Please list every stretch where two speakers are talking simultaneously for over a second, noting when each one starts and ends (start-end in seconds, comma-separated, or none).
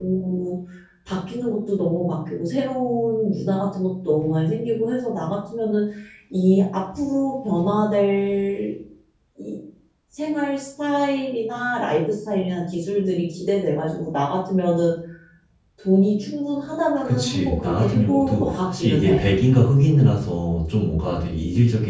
17.0-19.2